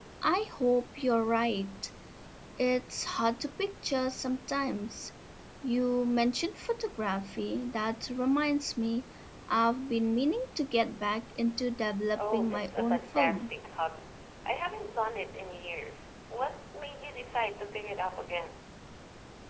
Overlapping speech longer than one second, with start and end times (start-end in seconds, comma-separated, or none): 12.2-13.5